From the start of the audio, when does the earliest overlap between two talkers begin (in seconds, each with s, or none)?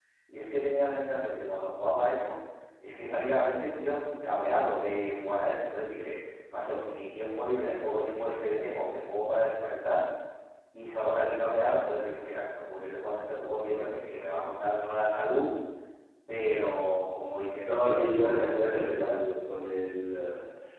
17.6 s